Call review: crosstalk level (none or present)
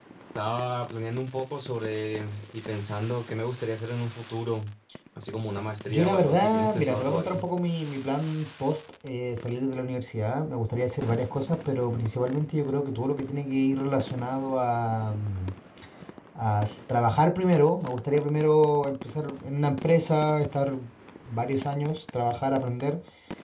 present